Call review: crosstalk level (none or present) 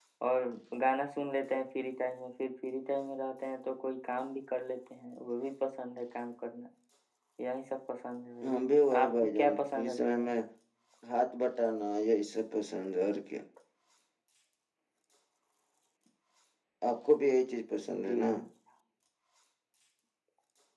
present